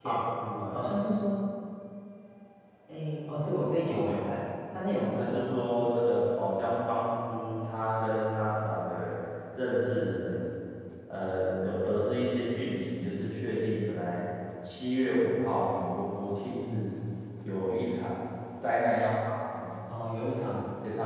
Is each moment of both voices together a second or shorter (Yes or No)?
Yes